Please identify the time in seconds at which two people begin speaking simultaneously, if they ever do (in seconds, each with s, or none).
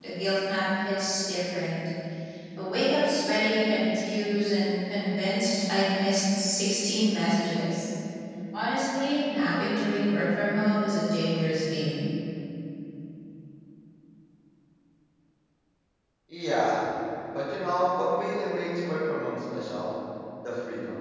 none